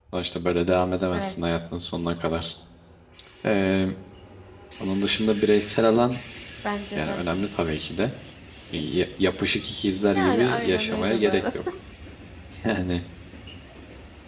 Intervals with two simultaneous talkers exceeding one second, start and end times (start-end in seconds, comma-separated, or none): 10.2-11.4